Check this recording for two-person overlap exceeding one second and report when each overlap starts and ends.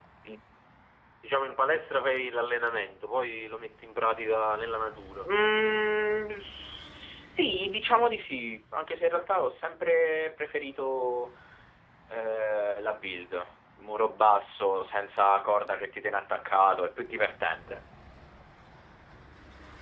none

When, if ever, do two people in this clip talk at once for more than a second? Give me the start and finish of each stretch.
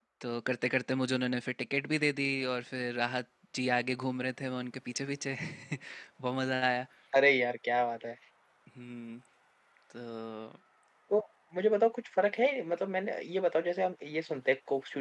none

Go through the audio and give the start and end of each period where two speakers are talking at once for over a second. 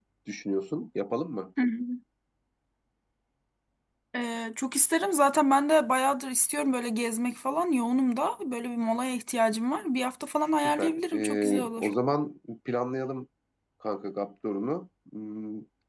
10.6-11.9

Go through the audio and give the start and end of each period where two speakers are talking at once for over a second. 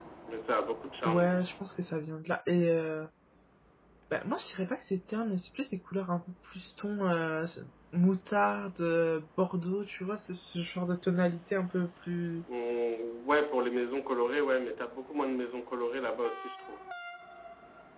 none

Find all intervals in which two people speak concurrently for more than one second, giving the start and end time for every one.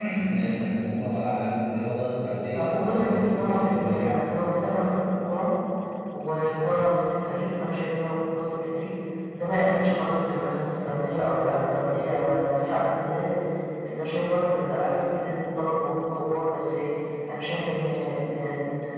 2.5-3.8

